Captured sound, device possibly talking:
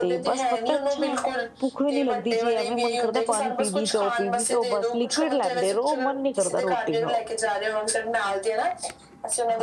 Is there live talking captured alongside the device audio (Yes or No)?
Yes